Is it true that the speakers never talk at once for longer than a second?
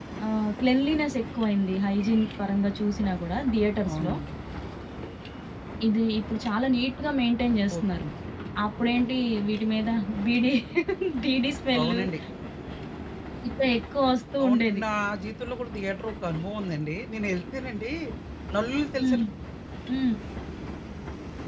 Yes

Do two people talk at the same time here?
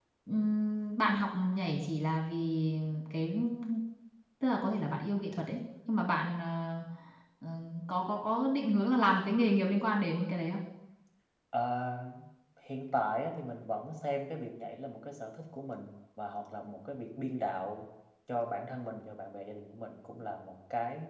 No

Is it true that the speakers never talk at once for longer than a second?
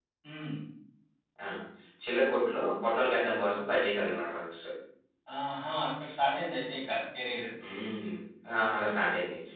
Yes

